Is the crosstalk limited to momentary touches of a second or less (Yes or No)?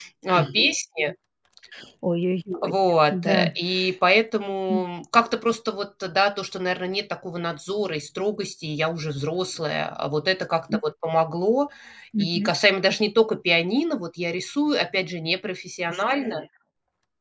Yes